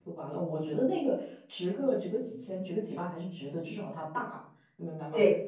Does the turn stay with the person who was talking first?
Yes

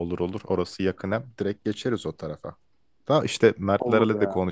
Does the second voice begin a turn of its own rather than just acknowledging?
No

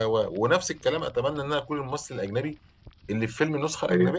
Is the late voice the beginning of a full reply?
No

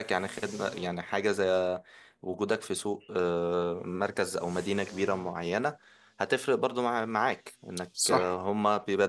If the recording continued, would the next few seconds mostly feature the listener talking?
No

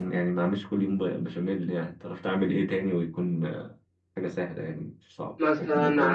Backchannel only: No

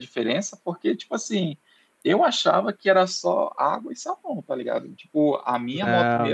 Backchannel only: Yes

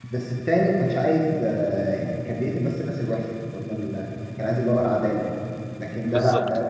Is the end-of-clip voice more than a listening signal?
No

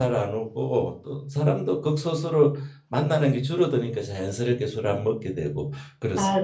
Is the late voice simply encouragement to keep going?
No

